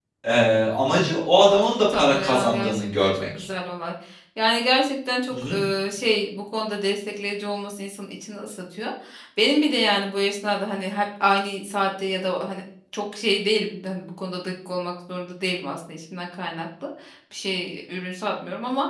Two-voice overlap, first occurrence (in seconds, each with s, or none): 1.6 s